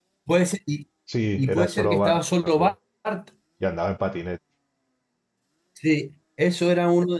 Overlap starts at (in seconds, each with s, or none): 1.4 s